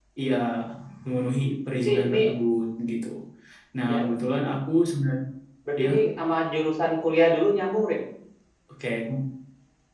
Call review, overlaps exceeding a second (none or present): none